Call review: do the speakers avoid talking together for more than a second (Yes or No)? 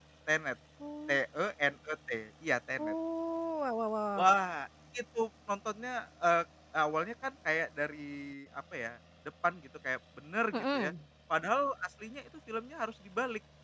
Yes